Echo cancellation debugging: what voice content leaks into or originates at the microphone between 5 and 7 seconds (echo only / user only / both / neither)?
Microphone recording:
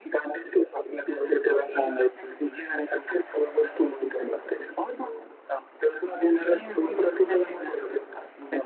echo only